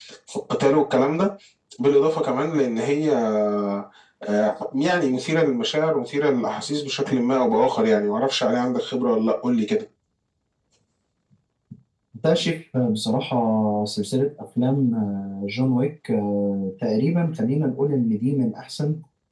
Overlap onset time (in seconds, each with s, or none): none